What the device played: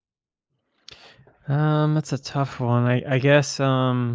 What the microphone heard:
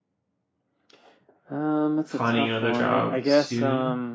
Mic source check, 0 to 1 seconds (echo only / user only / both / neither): neither